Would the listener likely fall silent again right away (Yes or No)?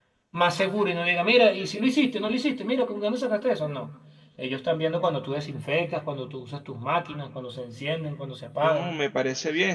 No